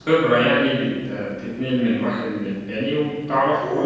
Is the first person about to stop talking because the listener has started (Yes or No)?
Yes